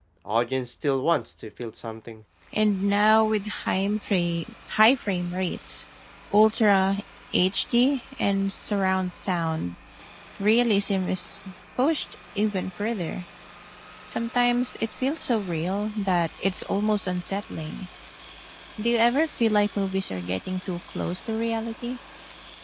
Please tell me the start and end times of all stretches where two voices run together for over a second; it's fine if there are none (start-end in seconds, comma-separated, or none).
none